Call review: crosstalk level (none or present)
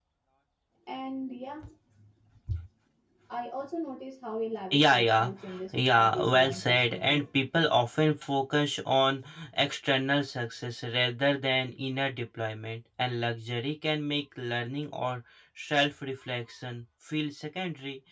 present